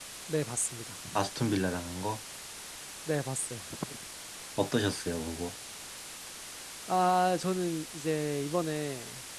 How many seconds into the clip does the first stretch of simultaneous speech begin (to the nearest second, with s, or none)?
none